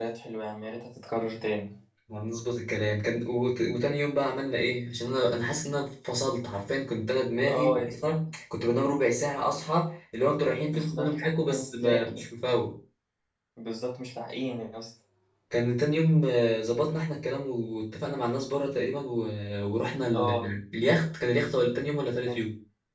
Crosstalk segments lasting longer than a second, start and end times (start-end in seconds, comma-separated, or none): 10.7-12.0